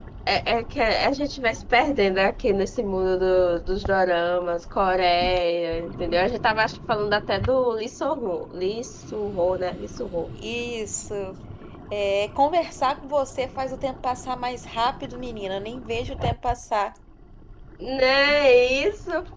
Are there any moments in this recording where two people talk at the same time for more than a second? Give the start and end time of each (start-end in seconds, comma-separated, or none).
none